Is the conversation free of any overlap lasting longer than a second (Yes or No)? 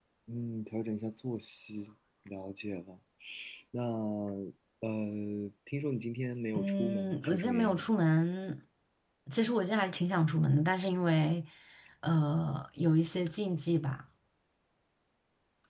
No